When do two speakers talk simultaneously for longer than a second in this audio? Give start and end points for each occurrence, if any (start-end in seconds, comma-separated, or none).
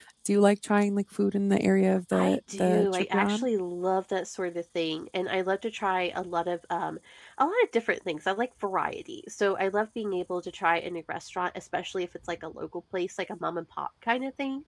2.1-3.5